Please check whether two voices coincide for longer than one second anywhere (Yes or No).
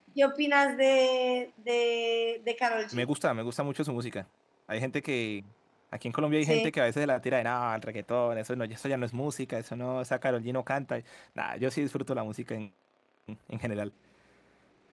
No